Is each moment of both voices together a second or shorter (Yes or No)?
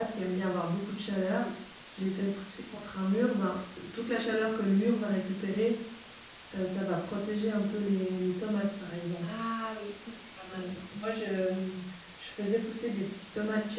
Yes